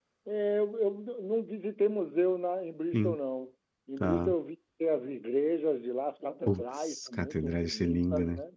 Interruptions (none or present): present